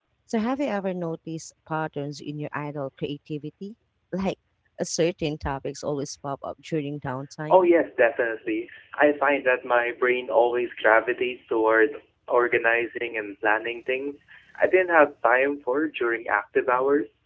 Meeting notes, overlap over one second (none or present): none